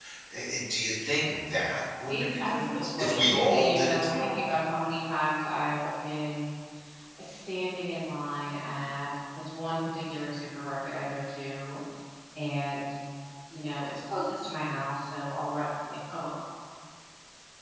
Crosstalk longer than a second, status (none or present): present